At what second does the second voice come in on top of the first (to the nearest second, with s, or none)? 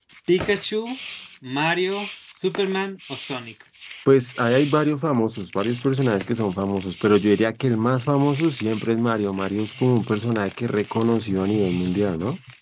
none